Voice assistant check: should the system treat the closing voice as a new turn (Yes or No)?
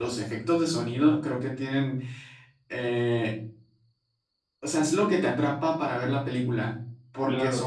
Yes